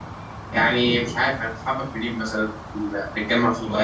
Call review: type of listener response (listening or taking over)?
taking over